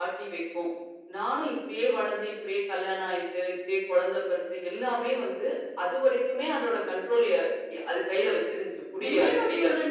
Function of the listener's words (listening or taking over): taking over